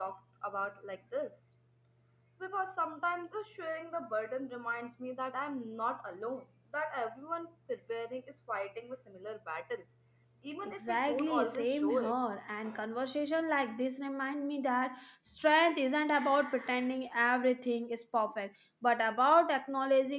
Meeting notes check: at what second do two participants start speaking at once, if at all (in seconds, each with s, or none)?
10.6 s